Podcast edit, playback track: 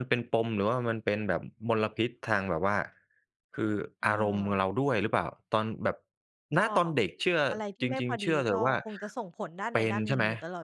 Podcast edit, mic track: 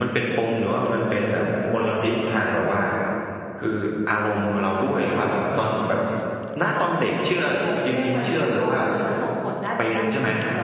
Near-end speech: none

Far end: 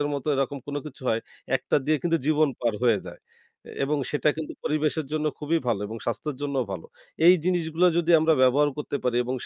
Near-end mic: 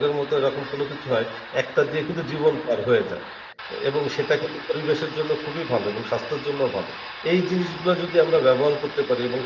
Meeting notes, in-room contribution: none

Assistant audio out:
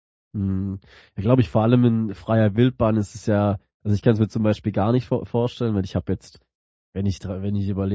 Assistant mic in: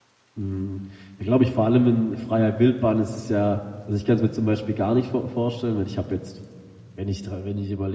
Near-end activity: none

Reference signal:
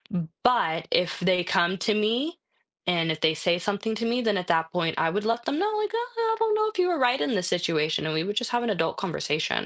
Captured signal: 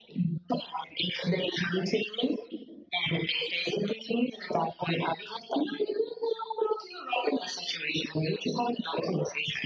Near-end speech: none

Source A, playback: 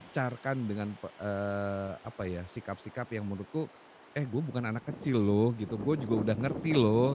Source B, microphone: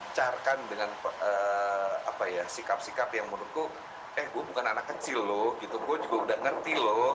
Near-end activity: none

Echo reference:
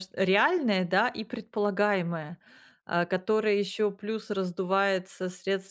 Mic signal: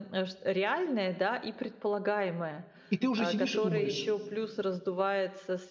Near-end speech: present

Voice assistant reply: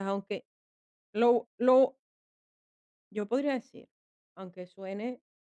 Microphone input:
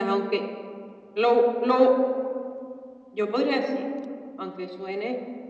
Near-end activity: none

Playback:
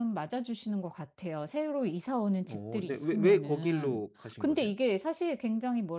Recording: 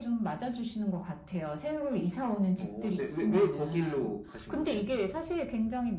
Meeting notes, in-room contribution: none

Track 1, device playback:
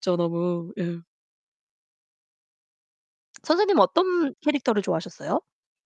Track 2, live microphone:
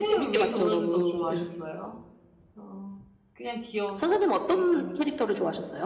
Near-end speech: present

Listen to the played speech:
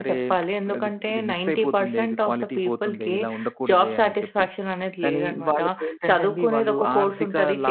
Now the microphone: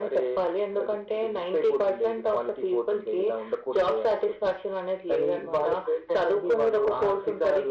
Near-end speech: none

